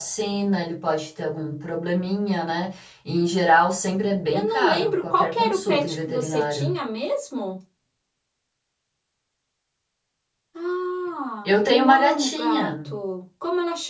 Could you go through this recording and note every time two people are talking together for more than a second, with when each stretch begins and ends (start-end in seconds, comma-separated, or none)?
4.3-6.7, 11.4-12.9